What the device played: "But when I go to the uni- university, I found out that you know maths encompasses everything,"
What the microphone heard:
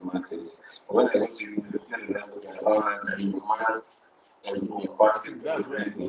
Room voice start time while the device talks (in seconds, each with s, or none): 4.5 s